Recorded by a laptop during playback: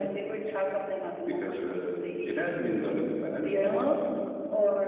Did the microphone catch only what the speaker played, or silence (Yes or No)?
Yes